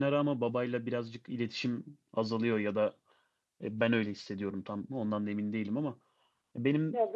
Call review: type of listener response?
listening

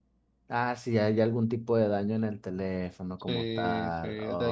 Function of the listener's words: taking over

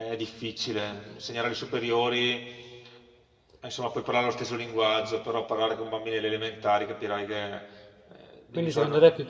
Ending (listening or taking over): taking over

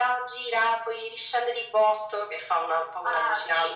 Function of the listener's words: taking over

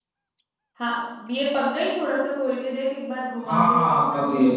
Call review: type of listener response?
taking over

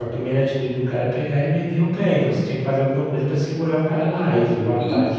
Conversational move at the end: taking over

